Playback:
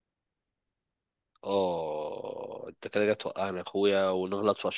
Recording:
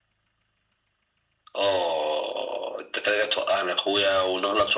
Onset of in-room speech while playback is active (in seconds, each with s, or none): none